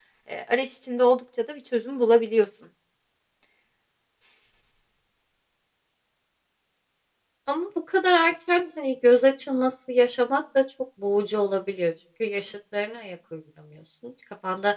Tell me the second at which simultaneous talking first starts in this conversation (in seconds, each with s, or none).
none